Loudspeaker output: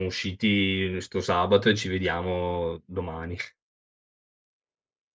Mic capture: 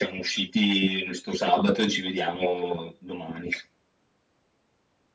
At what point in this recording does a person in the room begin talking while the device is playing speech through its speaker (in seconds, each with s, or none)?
none